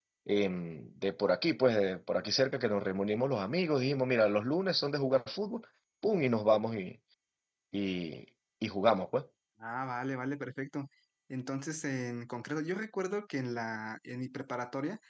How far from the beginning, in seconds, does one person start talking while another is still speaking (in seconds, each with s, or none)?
none